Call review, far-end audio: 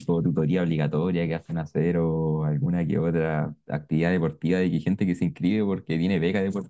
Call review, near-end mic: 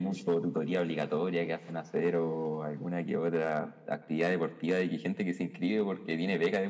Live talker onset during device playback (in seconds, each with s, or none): none